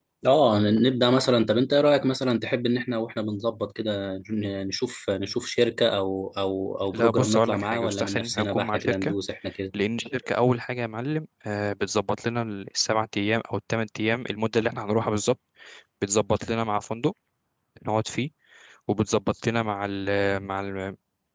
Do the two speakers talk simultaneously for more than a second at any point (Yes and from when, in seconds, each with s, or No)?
Yes, from 6.9 s